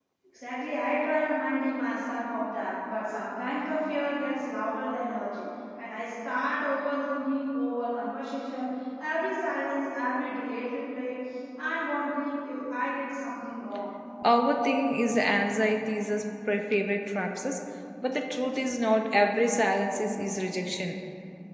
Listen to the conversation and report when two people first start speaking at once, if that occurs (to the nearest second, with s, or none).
none